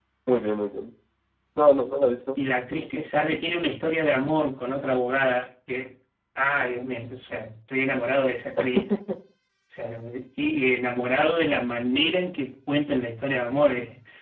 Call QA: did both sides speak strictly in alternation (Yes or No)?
Yes